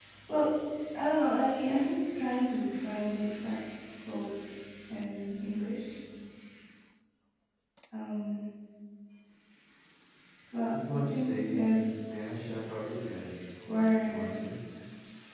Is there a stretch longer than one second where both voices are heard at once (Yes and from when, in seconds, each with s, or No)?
Yes, from 10.7 s